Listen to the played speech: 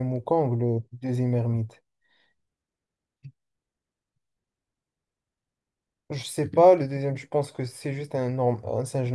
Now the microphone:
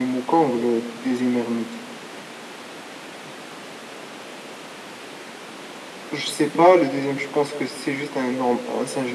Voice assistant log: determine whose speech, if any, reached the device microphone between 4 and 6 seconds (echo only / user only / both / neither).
neither